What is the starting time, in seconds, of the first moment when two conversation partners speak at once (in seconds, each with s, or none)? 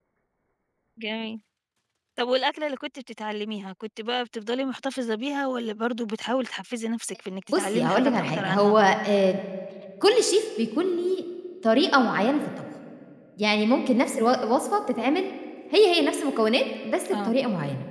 7.5 s